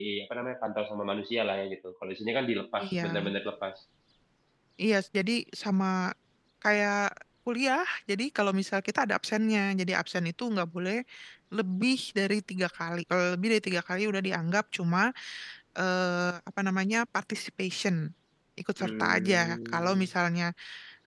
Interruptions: present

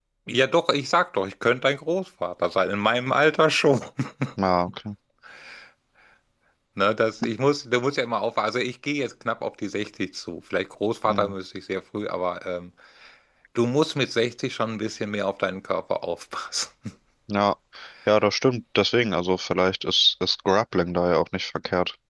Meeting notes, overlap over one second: none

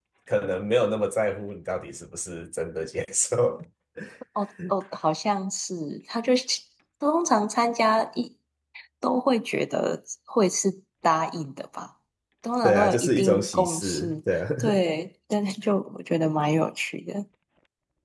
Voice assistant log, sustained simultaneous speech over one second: present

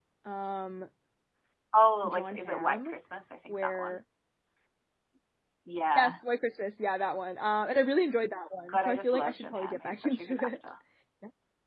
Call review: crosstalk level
present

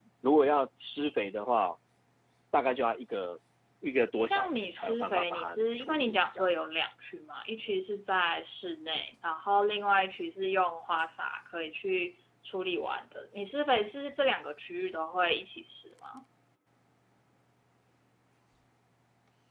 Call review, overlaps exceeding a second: present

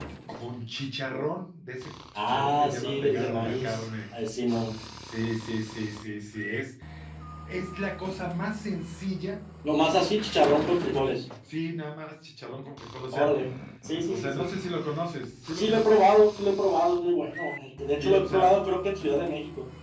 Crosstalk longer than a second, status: present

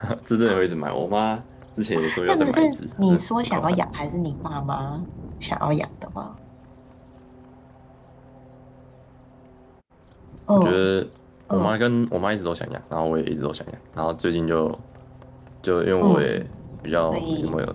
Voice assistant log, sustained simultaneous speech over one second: present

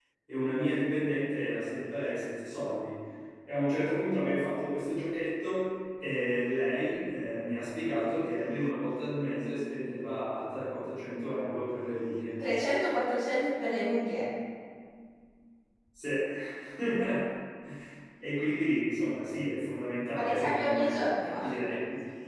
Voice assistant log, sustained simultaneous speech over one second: present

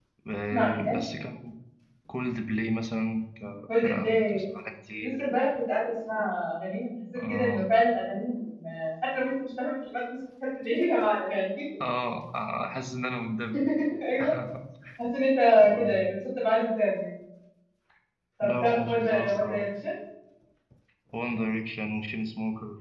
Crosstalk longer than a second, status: present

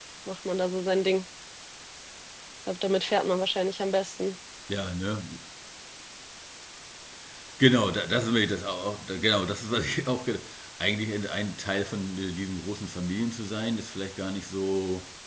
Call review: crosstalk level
none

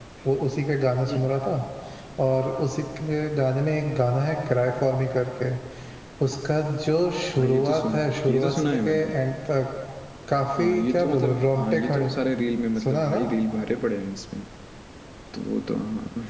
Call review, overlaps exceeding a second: present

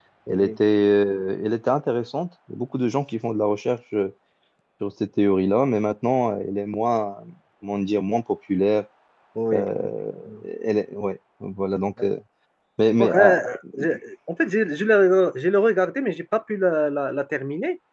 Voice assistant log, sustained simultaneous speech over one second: none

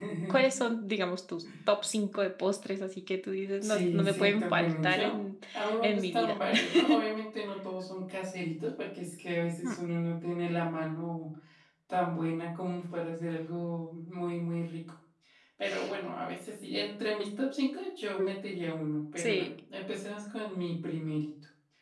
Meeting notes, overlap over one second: present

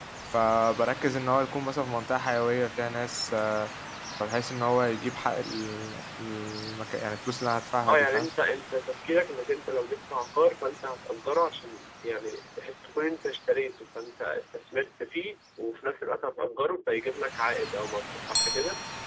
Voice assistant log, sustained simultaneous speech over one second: none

